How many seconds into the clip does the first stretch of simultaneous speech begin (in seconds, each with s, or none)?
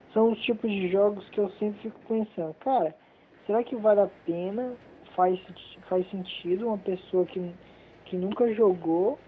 none